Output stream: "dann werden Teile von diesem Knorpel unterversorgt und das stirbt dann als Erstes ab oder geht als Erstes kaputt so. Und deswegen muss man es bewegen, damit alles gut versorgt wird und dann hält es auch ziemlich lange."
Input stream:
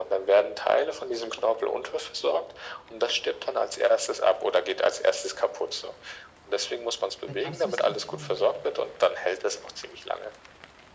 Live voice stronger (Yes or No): No